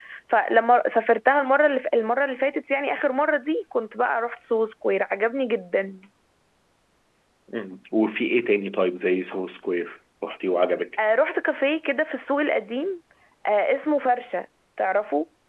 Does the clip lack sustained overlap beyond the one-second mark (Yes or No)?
Yes